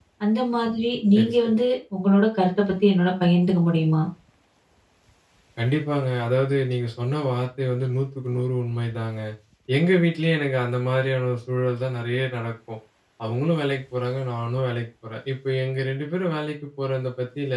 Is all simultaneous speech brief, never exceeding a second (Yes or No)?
Yes